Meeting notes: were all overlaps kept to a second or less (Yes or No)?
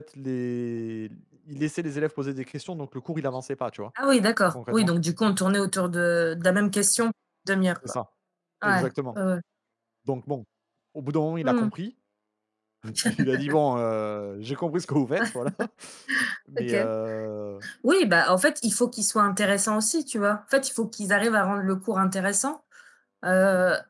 Yes